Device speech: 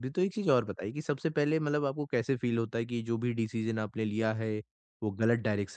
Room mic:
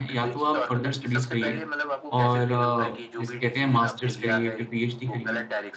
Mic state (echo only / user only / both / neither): both